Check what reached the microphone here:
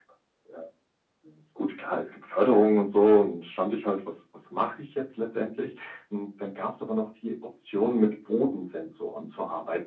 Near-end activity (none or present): none